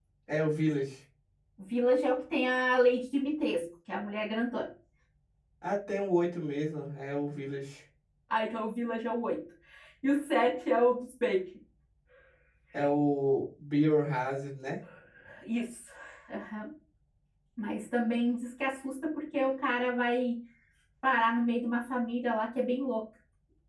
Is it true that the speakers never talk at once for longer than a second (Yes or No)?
Yes